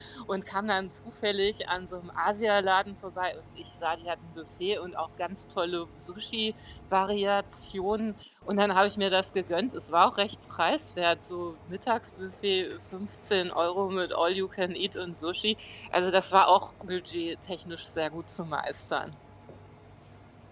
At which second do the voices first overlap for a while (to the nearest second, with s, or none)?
none